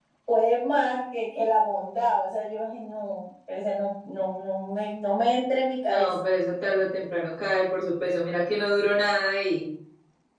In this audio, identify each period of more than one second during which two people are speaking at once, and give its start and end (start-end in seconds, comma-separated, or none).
none